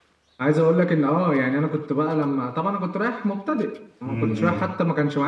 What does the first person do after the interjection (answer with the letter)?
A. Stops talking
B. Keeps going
B